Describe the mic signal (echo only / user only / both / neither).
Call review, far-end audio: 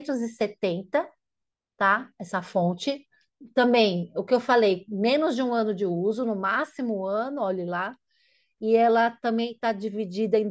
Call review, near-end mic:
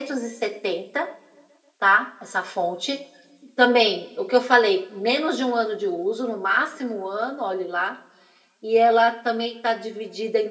echo only